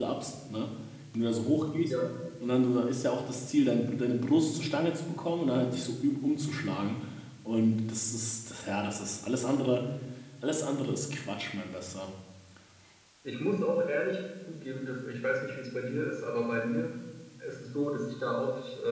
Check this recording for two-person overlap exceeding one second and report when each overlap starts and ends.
none

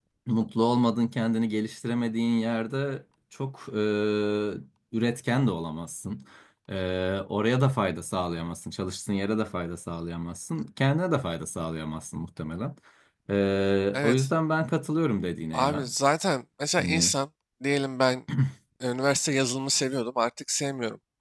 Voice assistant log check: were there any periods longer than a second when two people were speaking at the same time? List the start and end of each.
none

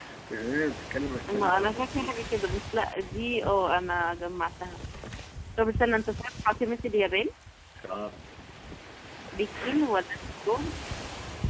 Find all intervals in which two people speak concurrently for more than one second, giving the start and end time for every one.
1.3-2.6

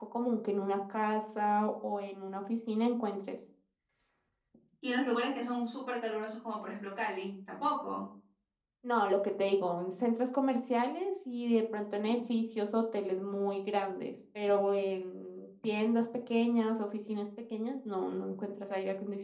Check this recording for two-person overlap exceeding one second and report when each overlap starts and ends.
none

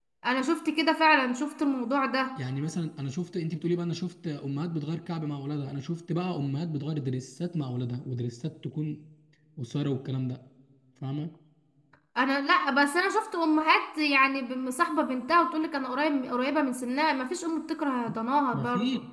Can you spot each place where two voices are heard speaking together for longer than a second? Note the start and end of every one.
none

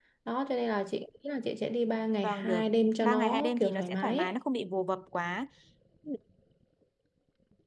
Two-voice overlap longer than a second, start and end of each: 3.0-4.3

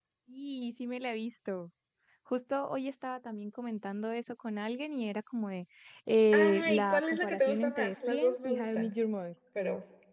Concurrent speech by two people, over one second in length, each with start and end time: 6.3-8.9

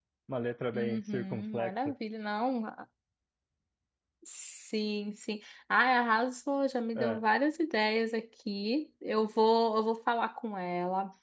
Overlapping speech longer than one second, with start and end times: 0.7-1.9

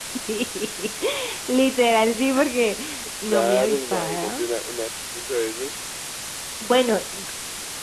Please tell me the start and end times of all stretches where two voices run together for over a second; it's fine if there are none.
3.2-4.5

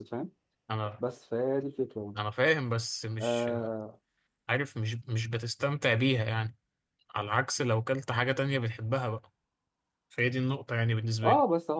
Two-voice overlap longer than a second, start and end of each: none

